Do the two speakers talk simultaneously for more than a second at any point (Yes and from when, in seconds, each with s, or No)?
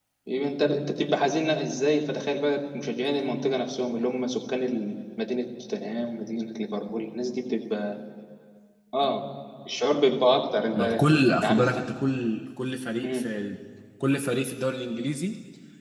No